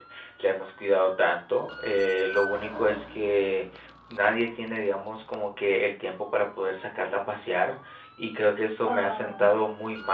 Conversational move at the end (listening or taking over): listening